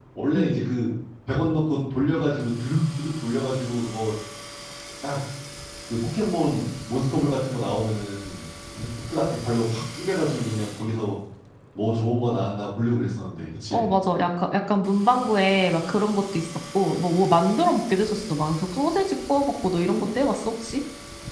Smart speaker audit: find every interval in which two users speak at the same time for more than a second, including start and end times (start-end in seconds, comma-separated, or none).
none